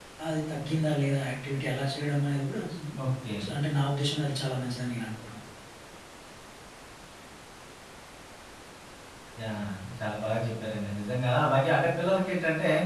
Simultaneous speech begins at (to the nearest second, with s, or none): none